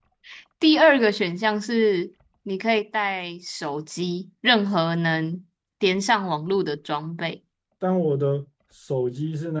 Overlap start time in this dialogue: none

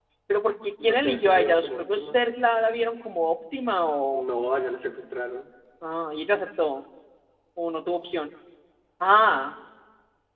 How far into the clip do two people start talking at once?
0.8 s

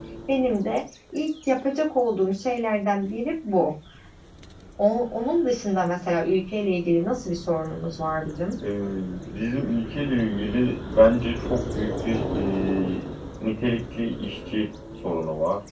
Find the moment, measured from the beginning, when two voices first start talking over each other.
none

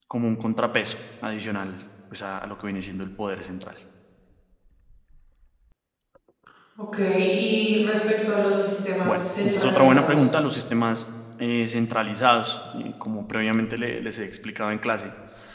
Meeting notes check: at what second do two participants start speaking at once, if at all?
9.0 s

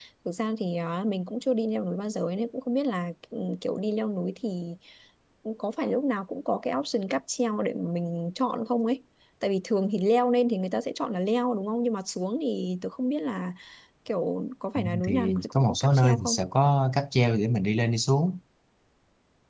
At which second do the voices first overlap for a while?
15.0 s

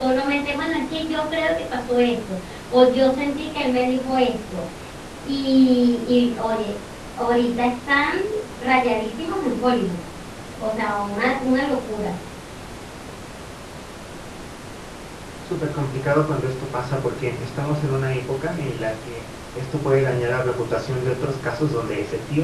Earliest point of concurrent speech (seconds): none

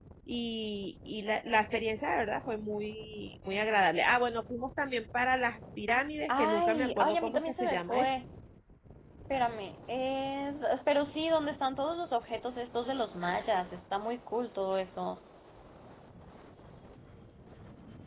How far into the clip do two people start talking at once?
6.3 s

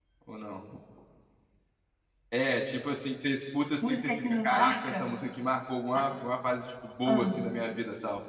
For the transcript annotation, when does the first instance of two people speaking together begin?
3.8 s

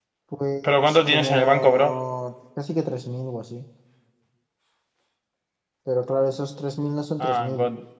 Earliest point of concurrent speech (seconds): 0.6 s

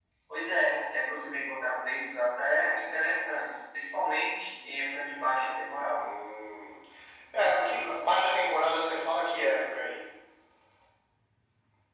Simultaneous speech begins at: none

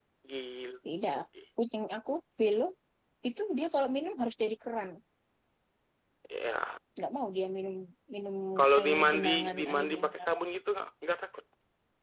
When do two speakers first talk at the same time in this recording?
8.8 s

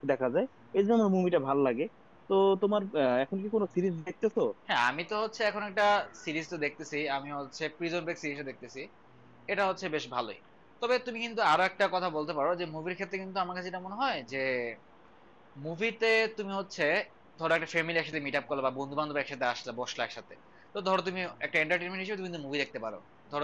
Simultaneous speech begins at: none

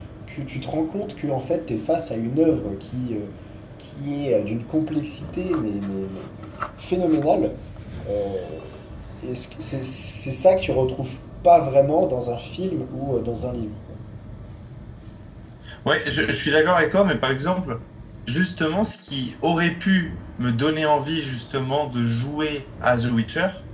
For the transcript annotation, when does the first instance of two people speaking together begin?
none

